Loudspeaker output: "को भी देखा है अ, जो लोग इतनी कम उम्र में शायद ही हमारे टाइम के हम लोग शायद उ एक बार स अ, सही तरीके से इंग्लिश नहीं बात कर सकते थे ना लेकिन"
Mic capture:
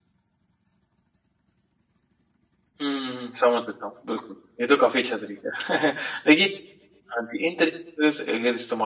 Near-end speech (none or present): present